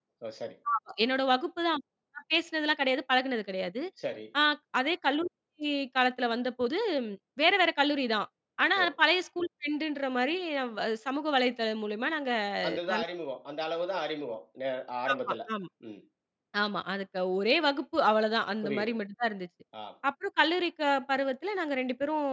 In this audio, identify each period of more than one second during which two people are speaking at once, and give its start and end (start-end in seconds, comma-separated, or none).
none